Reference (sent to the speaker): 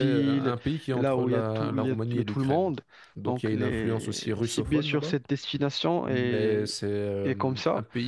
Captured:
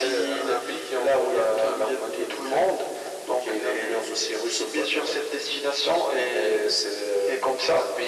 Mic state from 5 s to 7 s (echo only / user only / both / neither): echo only